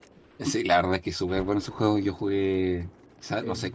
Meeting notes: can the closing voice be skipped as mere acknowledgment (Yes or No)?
Yes